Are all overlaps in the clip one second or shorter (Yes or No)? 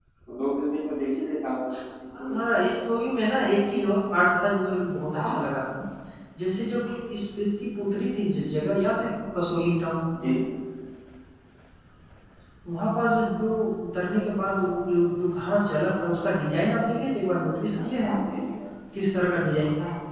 Yes